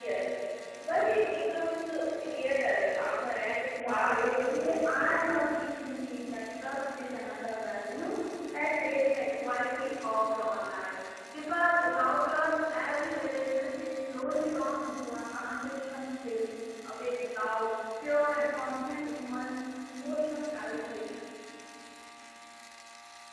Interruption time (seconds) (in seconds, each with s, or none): 3.8 s